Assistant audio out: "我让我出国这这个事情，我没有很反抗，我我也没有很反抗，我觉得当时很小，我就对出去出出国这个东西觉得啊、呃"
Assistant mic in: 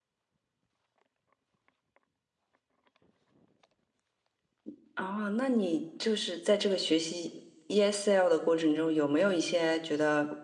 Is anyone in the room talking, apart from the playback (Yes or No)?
Yes